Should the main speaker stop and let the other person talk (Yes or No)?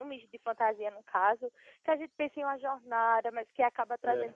No